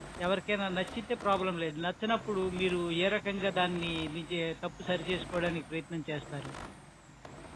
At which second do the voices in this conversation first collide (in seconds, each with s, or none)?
none